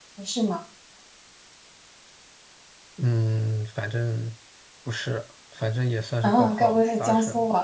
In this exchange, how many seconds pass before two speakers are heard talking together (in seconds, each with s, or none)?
6.2 s